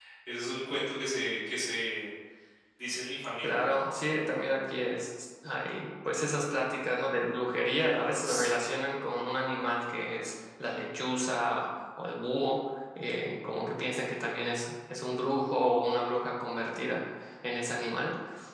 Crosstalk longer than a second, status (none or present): none